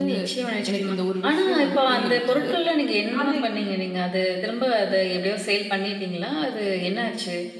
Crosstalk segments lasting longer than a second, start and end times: 1.3-2.5

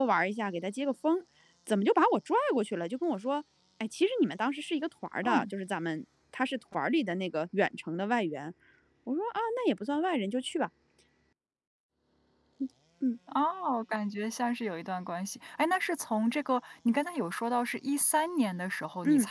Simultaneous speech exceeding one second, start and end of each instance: none

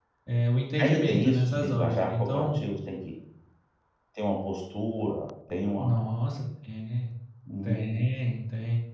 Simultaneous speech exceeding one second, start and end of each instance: 0.8-2.6

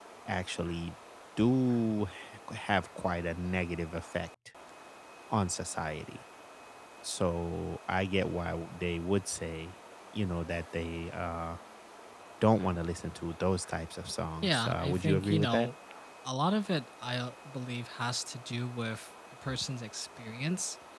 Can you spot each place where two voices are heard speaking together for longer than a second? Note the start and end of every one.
14.4-15.7

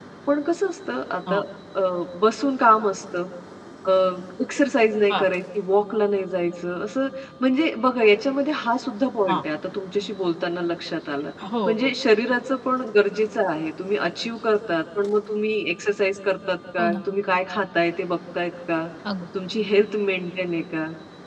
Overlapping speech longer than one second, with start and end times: none

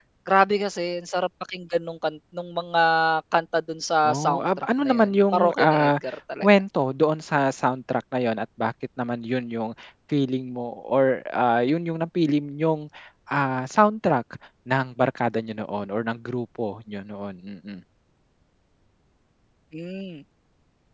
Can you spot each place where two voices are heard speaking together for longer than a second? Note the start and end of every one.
4.1-5.9

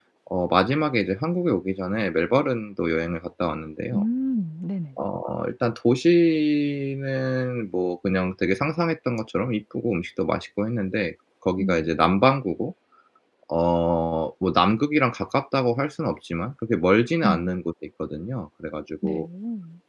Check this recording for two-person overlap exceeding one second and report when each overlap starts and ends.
none

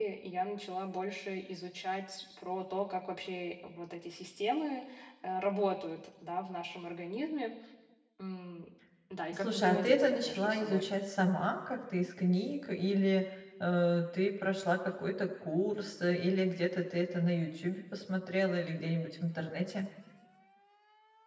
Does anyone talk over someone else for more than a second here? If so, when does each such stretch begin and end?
9.3-10.9

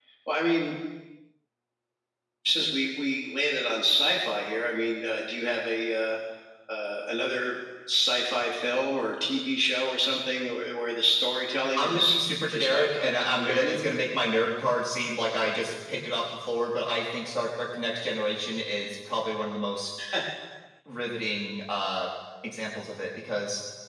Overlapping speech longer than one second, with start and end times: 11.8-13.8

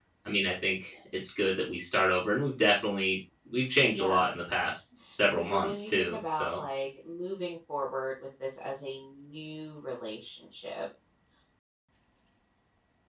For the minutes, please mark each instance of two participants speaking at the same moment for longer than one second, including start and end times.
5.3-6.6

